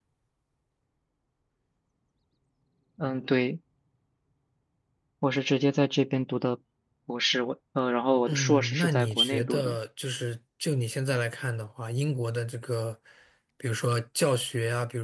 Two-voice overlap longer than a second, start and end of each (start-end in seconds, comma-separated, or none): 8.3-9.8